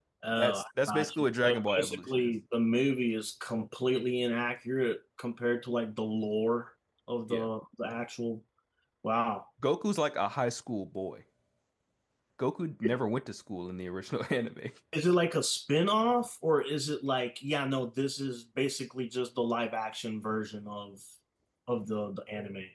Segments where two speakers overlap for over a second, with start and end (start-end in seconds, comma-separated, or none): 1.0-2.3